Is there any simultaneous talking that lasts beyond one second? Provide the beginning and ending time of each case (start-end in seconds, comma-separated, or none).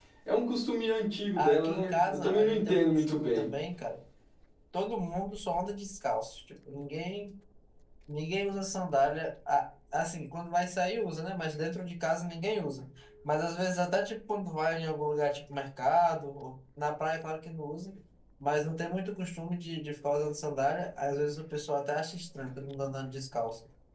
1.4-3.5